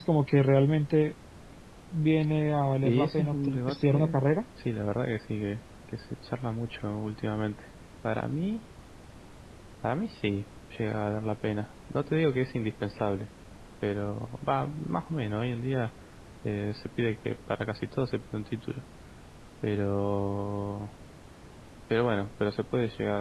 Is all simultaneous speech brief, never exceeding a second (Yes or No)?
No